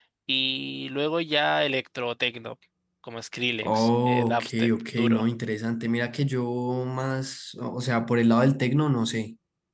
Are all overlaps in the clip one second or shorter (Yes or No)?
No